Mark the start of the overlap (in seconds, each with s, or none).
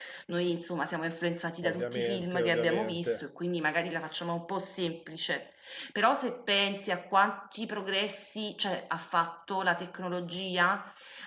1.6 s